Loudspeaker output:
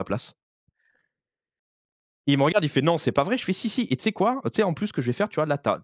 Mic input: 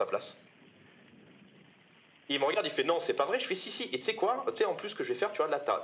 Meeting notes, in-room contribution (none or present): none